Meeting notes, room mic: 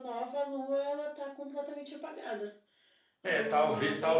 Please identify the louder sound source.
user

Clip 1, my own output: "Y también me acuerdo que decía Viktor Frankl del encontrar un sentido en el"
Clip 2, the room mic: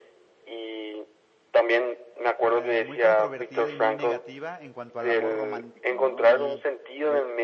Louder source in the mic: echo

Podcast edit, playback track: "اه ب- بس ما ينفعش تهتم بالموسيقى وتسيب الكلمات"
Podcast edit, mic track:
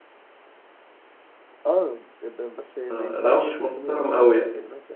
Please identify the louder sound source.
user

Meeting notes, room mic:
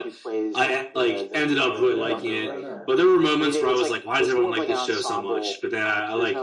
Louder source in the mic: echo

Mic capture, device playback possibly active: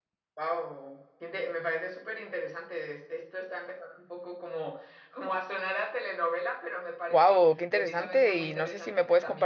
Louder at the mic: user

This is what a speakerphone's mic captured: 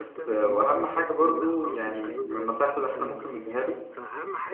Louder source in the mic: user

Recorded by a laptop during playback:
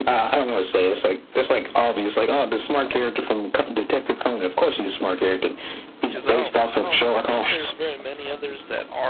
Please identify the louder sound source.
echo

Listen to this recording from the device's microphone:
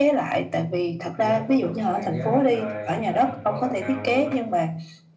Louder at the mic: echo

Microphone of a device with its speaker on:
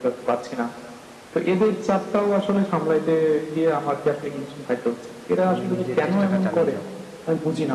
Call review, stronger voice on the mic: echo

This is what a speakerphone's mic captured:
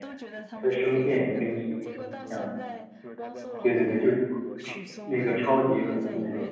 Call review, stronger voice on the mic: user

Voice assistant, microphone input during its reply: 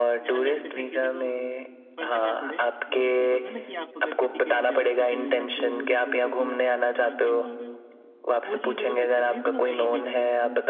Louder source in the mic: echo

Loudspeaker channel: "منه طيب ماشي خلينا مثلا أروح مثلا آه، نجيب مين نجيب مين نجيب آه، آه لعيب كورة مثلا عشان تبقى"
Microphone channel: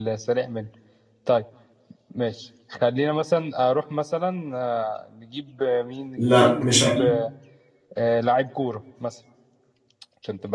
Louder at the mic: user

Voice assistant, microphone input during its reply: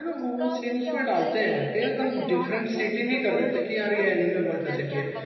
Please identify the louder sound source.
user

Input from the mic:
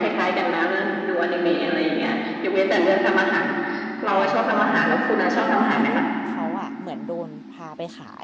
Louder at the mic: echo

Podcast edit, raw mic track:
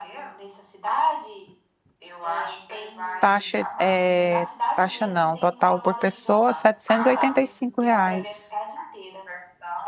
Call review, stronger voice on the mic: user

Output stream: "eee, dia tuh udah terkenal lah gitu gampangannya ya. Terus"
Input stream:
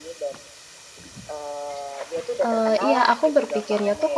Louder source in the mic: user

